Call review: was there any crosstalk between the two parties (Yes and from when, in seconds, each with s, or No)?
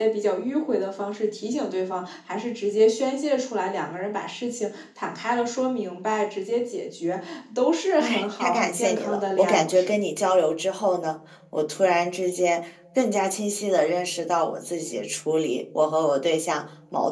Yes, from 8.0 s